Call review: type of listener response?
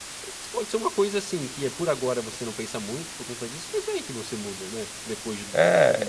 taking over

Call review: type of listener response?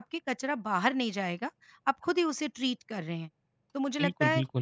listening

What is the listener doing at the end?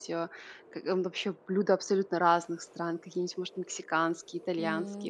listening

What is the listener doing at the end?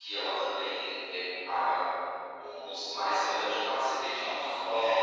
taking over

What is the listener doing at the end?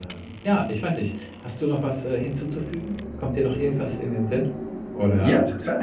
taking over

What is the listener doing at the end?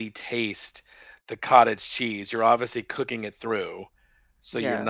listening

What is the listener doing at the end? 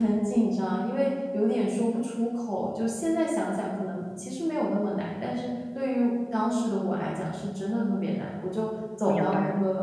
listening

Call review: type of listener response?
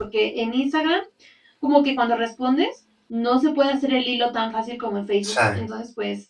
listening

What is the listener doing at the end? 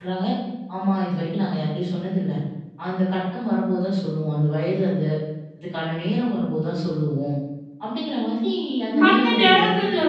taking over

